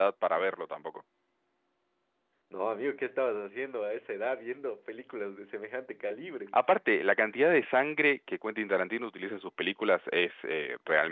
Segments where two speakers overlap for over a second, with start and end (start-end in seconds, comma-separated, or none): none